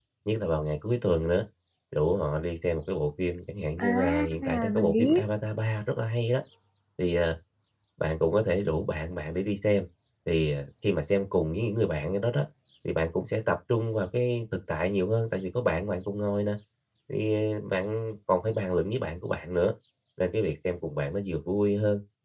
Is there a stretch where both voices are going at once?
Yes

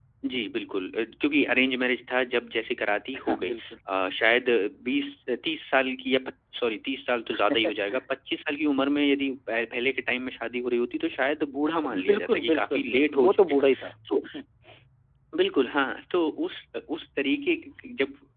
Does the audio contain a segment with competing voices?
Yes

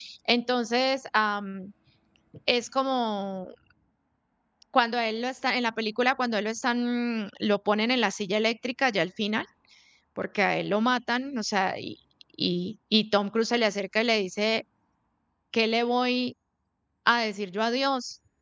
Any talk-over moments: No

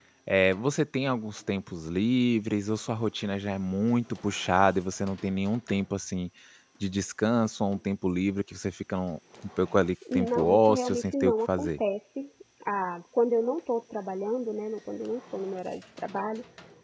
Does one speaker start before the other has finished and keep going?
Yes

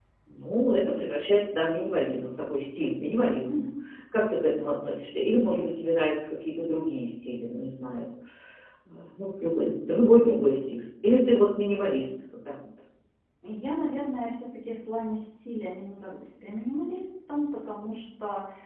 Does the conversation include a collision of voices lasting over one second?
No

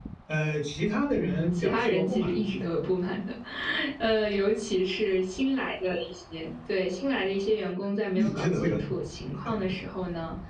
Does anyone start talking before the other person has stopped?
Yes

